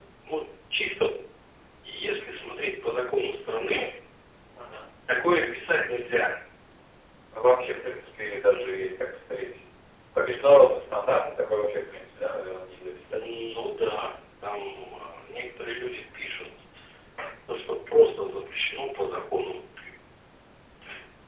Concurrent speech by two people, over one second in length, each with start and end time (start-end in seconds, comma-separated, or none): none